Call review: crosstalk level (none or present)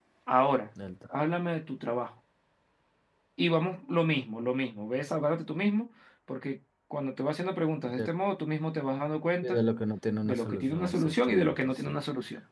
present